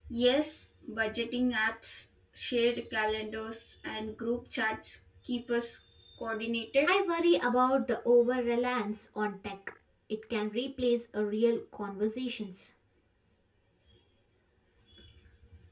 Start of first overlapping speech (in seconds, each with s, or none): none